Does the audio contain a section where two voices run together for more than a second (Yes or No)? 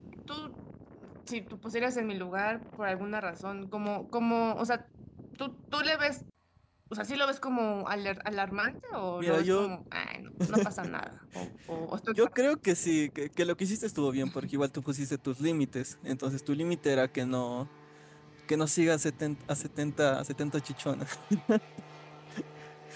No